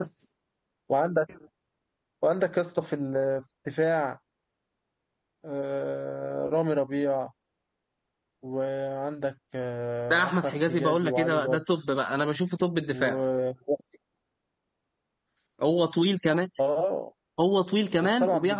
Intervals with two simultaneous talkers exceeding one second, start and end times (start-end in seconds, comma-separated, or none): 10.1-11.6